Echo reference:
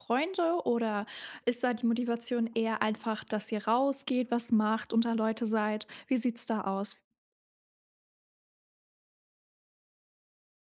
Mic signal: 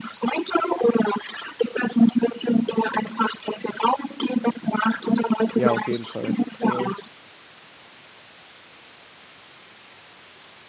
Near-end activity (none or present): present